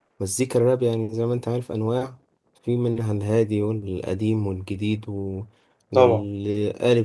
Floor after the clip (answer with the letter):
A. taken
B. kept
B